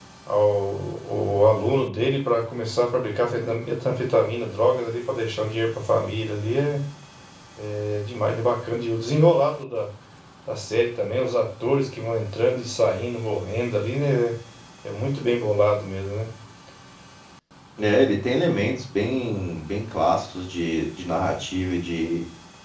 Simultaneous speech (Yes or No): No